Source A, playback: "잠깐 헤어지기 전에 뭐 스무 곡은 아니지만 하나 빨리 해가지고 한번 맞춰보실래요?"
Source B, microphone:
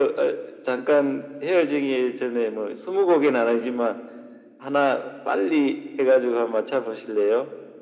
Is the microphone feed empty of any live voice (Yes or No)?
Yes